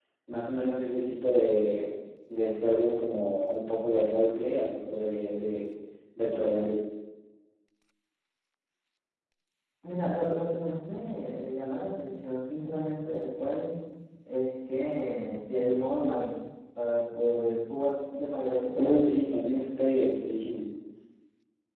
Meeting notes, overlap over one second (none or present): none